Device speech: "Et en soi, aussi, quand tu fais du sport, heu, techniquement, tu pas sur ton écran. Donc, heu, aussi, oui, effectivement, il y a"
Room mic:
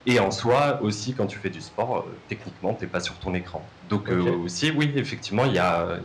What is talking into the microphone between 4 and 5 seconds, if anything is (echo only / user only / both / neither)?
both